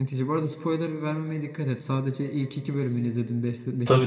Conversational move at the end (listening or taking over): taking over